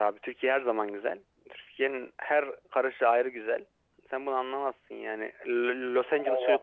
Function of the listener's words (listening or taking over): taking over